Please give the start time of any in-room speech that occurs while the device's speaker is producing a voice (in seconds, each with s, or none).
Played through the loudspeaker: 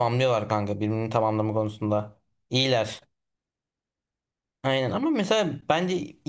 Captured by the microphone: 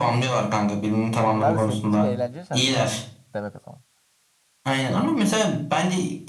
1.2 s